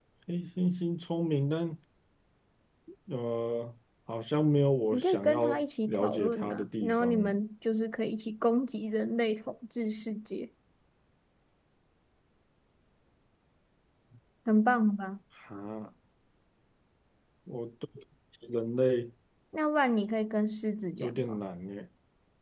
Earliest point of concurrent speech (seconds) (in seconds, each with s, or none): 4.9 s